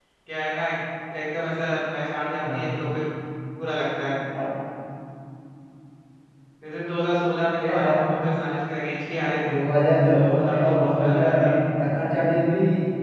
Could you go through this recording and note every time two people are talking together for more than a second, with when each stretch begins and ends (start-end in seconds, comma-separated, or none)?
10.1-11.5